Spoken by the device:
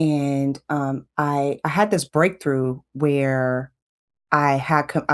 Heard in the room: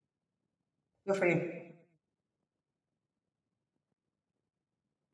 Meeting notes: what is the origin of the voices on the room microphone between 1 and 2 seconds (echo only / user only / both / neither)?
user only